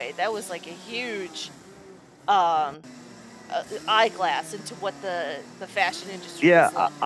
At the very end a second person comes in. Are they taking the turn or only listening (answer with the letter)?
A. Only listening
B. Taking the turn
B